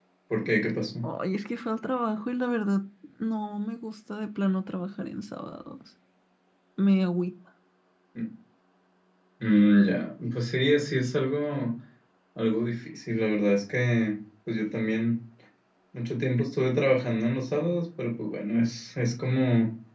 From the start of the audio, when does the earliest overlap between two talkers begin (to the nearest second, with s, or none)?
none